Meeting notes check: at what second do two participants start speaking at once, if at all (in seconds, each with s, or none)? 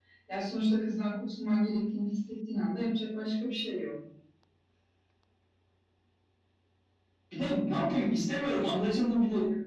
none